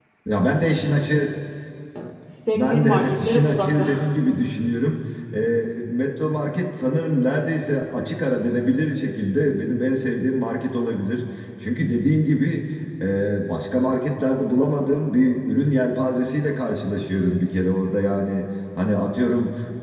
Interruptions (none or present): present